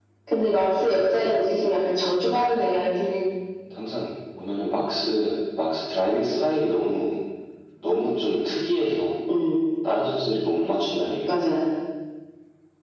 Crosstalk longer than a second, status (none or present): none